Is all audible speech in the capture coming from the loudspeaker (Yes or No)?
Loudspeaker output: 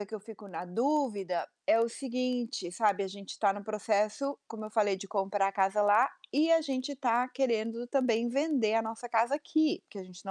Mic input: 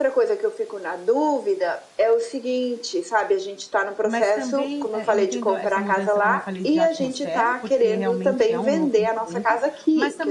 No